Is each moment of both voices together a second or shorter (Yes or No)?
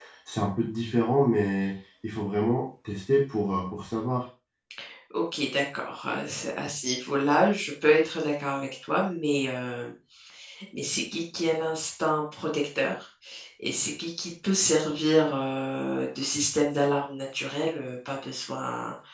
Yes